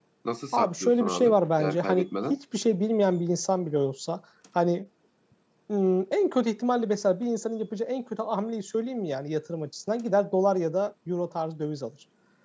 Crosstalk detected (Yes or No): Yes